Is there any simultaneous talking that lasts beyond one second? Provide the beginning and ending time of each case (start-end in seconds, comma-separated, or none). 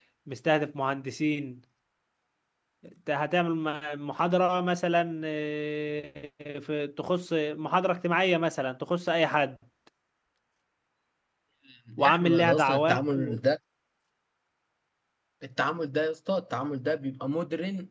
12.0-13.4